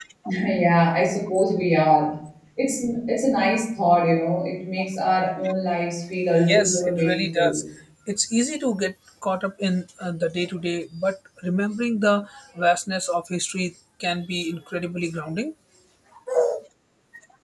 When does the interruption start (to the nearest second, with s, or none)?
6 s